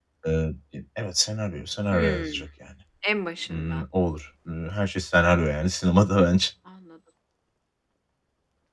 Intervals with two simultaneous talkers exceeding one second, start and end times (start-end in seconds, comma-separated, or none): none